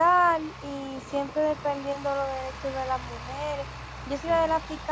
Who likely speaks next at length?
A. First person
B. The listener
A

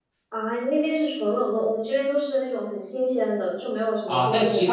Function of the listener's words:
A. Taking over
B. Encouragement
A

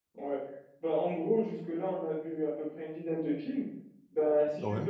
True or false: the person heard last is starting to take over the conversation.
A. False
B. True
A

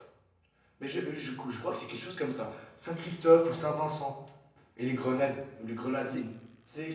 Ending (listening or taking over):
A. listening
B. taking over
B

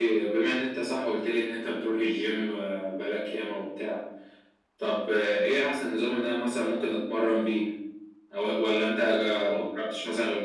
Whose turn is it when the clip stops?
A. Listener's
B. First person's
B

